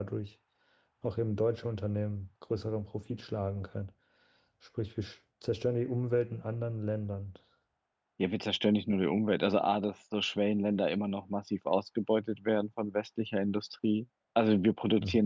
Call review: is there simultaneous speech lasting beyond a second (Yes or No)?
No